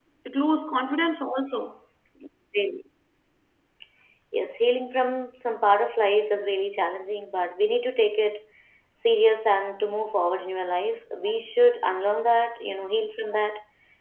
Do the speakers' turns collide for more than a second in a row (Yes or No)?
No